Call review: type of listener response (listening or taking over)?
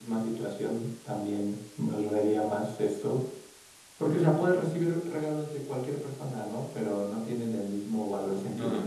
taking over